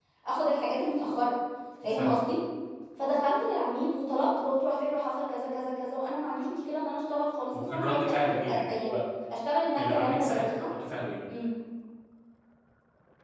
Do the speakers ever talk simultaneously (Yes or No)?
Yes